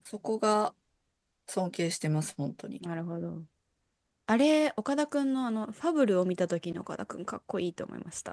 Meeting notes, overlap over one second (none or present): none